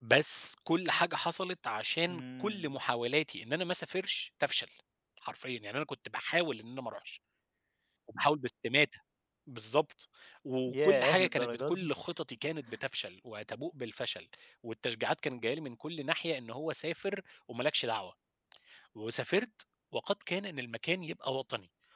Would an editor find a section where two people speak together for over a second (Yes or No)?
Yes